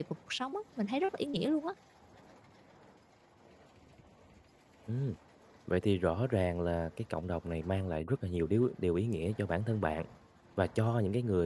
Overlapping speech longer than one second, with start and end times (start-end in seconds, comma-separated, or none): none